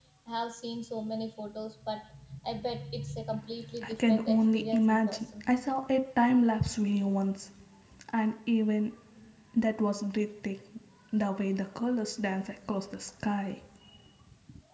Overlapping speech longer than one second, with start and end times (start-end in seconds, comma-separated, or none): 3.8-5.5